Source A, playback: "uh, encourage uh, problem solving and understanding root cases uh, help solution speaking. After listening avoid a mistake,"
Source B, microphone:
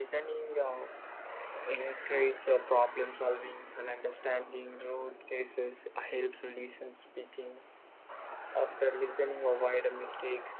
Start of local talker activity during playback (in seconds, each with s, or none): none